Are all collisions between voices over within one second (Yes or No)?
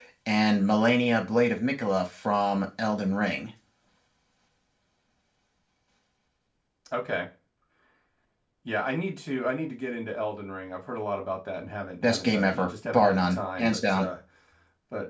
No